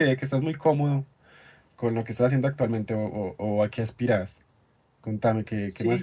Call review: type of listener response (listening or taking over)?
taking over